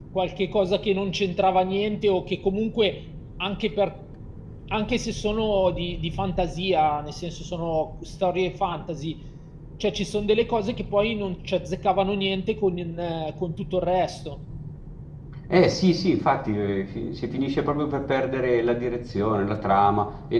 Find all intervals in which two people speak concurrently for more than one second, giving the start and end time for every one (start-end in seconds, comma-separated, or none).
none